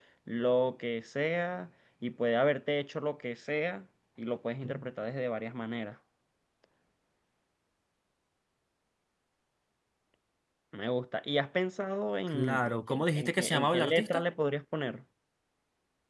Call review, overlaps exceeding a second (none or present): present